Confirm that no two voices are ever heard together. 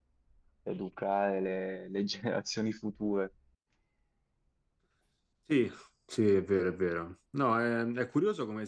Yes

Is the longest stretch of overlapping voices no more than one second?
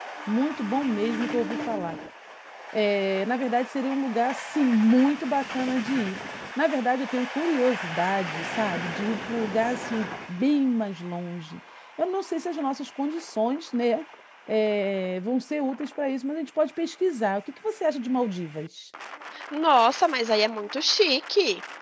Yes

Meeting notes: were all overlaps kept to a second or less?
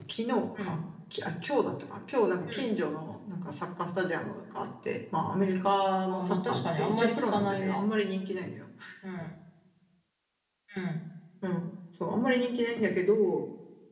No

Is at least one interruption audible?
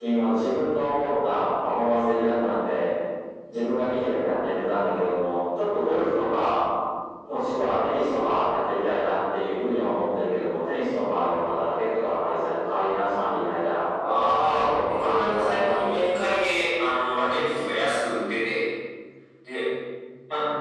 Yes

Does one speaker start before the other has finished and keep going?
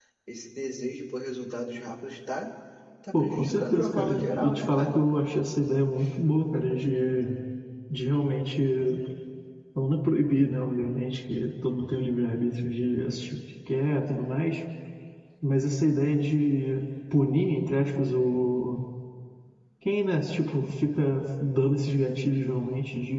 Yes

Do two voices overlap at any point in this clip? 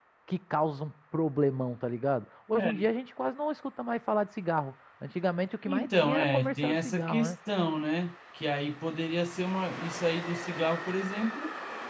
Yes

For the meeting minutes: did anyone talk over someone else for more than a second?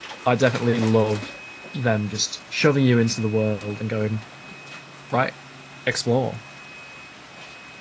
No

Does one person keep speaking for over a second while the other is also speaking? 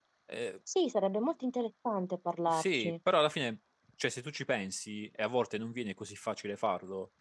No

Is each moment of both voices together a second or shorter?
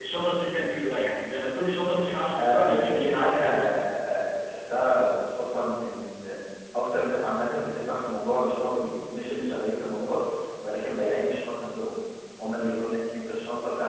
No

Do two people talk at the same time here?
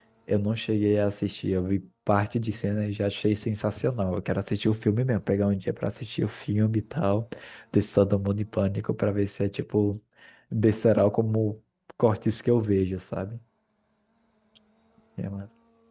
No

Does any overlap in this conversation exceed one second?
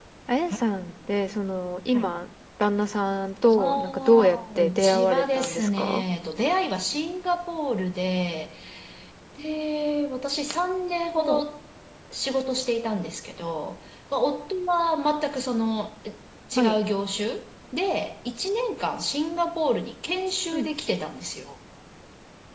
Yes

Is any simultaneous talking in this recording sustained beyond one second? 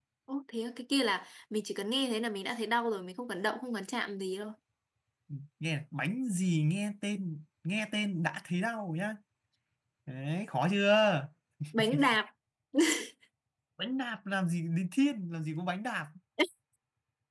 No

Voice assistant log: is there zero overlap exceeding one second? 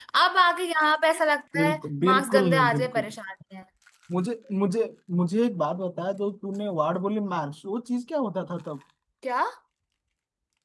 No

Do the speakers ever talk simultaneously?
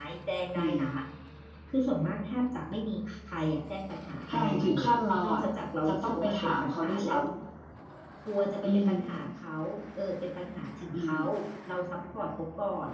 Yes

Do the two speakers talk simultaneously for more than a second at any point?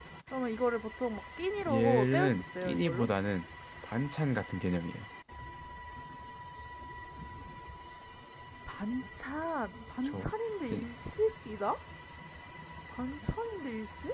Yes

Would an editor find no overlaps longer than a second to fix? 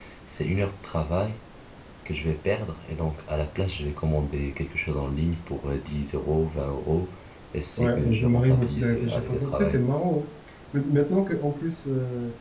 No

